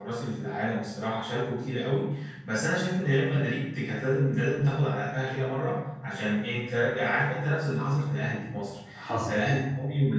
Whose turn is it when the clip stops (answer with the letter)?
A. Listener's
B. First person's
B